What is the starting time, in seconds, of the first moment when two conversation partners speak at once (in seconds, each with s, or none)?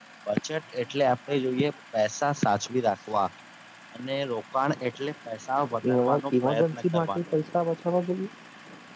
5.8 s